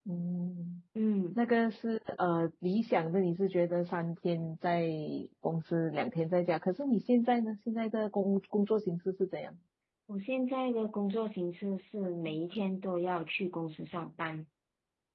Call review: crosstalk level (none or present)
none